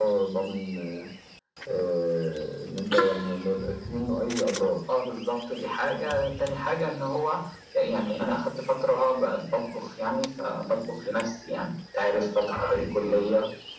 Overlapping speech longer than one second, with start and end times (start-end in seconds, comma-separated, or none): none